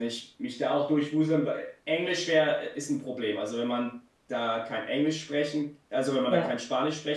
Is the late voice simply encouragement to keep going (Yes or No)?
Yes